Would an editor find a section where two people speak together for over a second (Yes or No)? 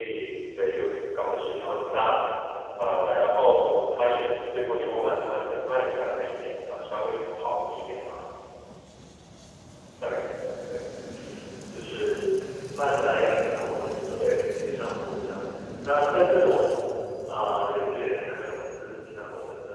No